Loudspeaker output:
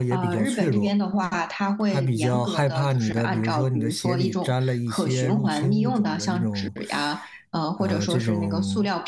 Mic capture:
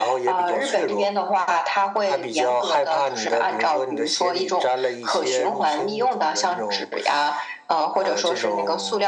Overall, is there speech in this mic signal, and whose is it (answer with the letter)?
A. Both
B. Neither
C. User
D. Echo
D